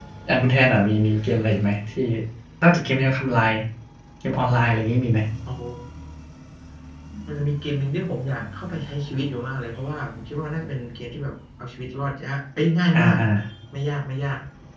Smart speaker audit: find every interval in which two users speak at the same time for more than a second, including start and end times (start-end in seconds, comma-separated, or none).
none